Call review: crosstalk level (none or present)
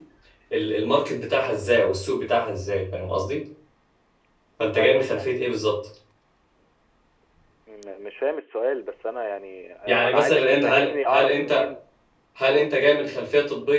present